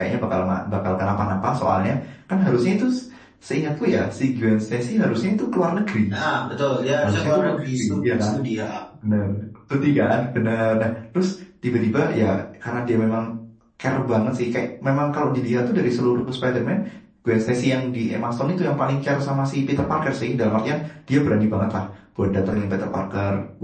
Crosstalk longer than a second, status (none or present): present